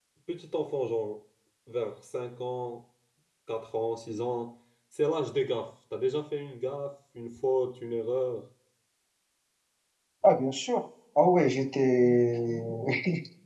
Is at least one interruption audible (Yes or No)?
No